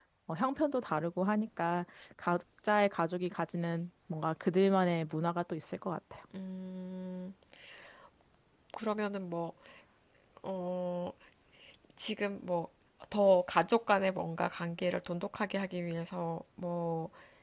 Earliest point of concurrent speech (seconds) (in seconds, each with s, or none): none